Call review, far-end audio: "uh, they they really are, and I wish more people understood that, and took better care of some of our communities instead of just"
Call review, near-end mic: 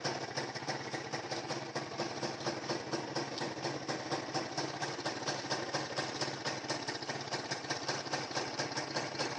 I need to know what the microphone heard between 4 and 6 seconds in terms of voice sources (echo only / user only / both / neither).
neither